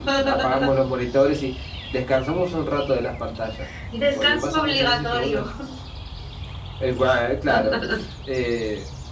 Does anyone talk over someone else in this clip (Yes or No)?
Yes